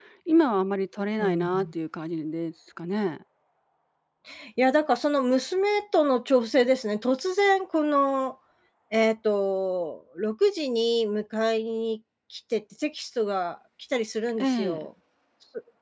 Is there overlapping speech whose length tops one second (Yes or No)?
No